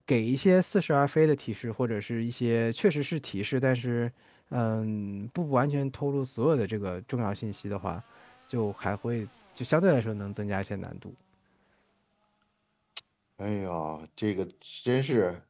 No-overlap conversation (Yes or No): Yes